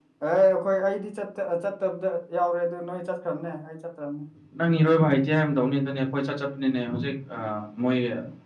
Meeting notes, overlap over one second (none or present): none